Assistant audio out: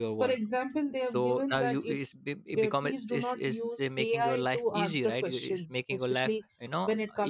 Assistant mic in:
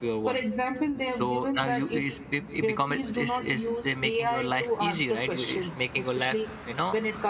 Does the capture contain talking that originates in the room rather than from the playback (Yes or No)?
No